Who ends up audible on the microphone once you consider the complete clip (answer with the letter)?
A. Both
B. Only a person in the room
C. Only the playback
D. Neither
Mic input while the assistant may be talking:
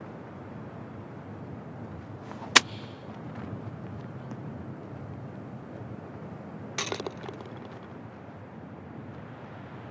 D